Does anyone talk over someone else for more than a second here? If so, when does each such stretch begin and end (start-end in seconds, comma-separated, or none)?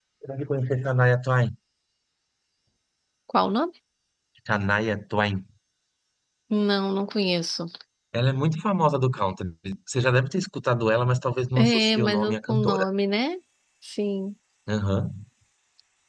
11.6-12.9